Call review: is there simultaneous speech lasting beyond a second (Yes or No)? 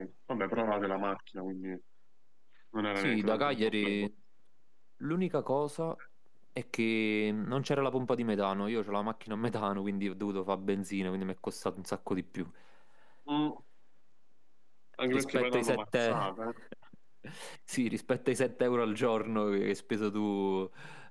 Yes